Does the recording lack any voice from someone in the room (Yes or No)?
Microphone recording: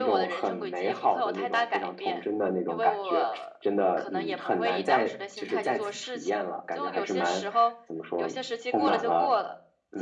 Yes